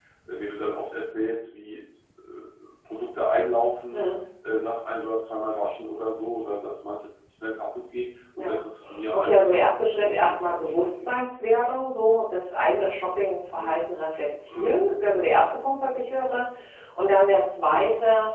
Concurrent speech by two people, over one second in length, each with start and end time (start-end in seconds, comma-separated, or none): 9.1-11.1